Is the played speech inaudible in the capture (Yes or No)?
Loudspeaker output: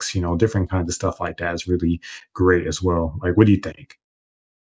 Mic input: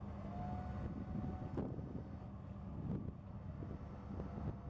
Yes